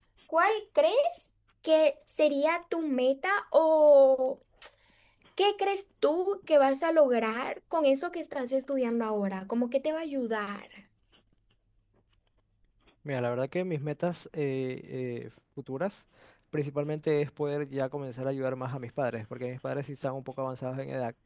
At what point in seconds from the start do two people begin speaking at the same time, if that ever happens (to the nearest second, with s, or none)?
none